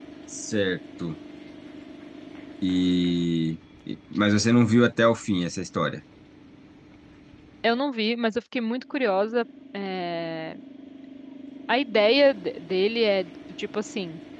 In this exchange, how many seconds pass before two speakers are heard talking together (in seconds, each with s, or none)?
none